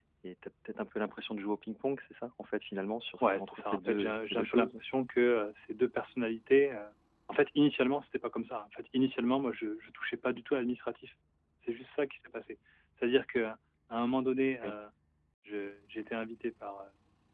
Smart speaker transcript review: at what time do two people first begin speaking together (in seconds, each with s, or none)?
3.2 s